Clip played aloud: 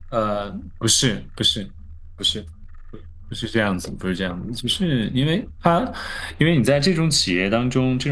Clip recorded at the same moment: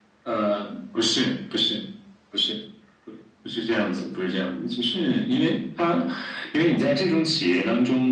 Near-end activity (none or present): none